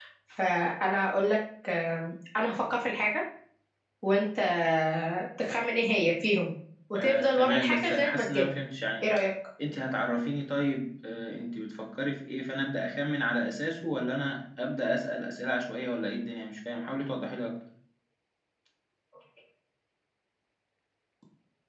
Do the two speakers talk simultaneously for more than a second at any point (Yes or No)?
Yes